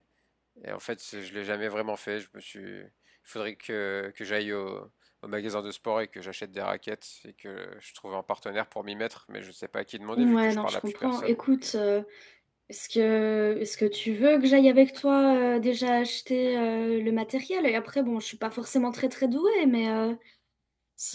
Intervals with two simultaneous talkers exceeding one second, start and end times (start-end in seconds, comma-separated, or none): 10.2-11.4